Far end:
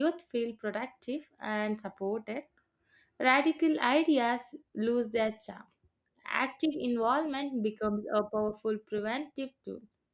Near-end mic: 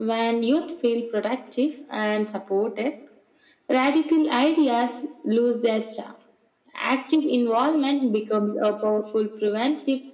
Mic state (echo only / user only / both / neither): echo only